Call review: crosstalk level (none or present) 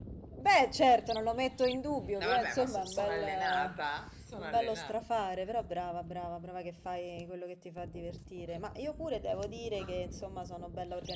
present